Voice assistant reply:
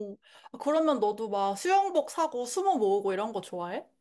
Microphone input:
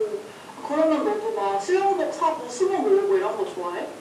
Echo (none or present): present